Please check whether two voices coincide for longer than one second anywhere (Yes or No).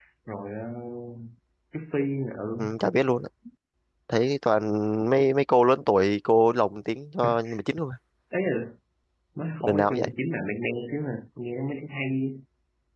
No